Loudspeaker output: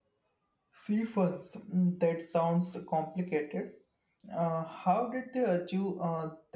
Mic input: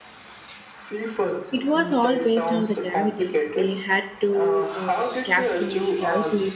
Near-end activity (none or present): present